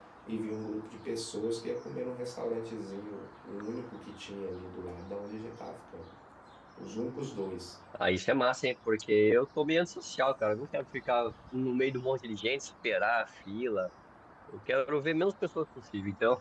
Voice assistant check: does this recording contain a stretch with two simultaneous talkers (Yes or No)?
No